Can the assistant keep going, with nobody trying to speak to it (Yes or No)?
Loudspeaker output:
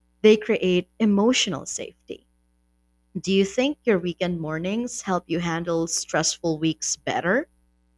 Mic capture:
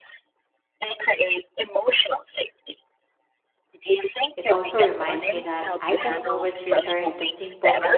No